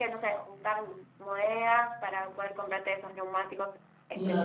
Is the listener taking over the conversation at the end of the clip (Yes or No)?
Yes